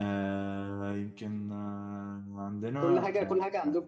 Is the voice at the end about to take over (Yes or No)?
Yes